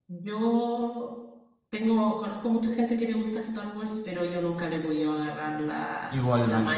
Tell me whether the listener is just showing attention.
No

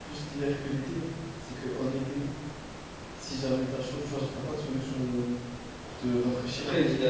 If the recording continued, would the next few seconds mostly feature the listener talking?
Yes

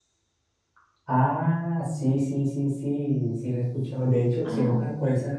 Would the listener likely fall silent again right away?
Yes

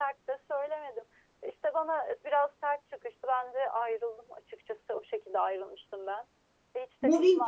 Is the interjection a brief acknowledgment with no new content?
No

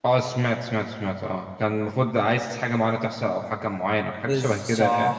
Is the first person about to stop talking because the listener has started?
Yes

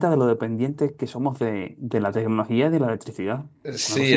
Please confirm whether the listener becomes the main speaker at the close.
Yes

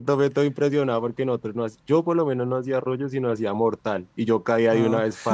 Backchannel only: Yes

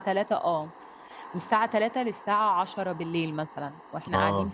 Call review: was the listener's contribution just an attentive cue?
No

